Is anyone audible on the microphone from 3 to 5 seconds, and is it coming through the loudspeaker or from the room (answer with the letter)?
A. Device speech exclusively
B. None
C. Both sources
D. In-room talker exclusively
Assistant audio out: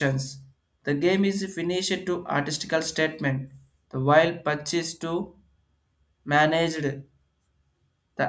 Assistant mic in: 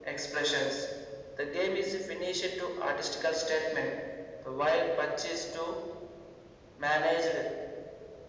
A